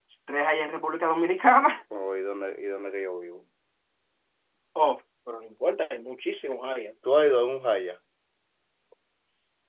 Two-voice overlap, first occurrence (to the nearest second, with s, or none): none